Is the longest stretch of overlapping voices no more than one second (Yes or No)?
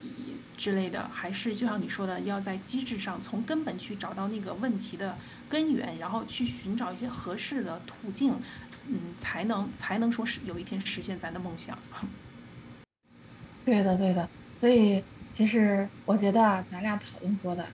Yes